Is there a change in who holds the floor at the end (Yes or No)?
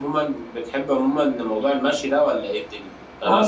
No